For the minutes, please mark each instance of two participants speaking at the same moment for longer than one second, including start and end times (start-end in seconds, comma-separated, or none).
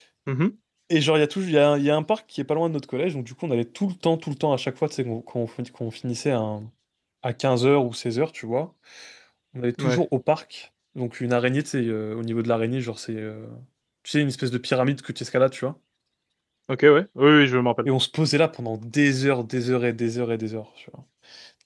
none